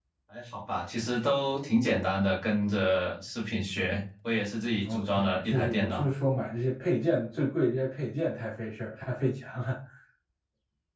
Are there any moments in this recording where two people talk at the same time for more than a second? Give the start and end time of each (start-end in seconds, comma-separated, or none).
4.8-6.1